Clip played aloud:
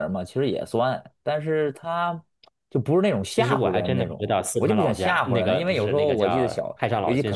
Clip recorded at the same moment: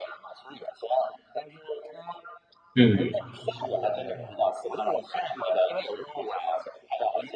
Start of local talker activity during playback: 2.8 s

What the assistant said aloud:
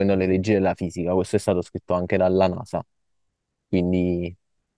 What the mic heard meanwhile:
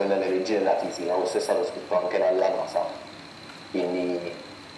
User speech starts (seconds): none

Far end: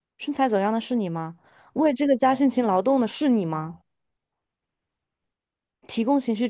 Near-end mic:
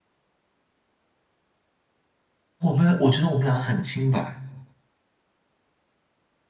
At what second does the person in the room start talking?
2.6 s

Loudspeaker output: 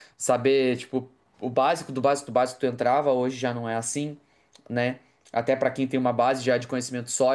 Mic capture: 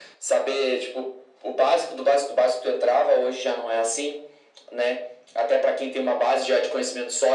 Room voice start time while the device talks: none

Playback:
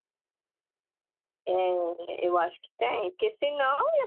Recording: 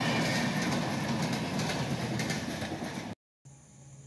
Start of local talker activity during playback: none

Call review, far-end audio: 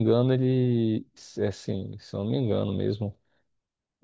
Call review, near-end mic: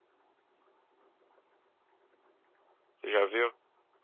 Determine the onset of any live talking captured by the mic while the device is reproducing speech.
2.9 s

